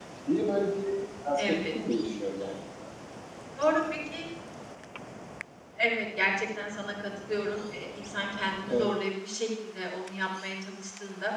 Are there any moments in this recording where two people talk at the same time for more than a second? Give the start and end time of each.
none

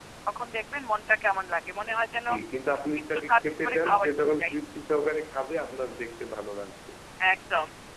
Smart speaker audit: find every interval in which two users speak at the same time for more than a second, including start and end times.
3.3-4.5

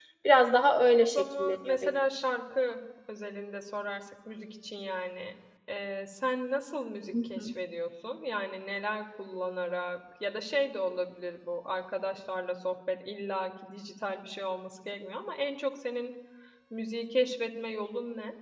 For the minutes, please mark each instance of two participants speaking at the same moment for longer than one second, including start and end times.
1.0-2.2

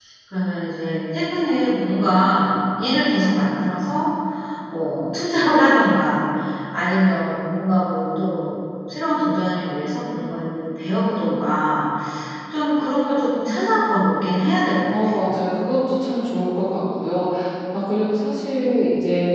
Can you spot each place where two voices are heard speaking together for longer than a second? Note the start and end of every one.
none

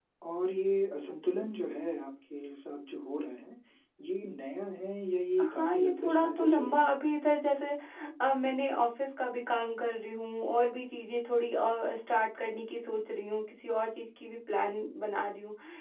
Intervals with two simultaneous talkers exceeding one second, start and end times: 5.4-7.0

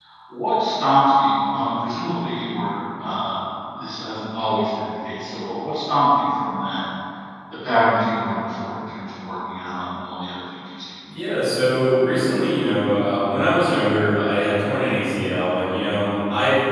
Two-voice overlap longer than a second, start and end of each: none

